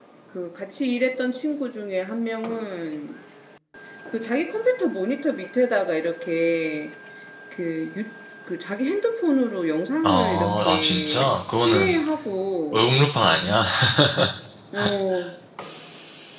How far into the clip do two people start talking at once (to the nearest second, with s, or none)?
10 s